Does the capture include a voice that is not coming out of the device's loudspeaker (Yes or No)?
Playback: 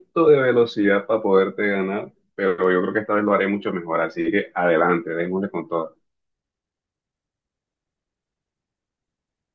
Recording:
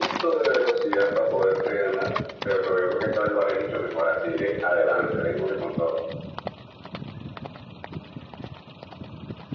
No